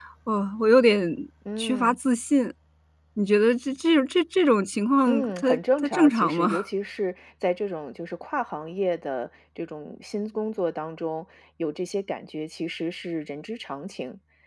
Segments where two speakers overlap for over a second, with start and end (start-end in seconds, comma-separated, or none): 5.1-6.6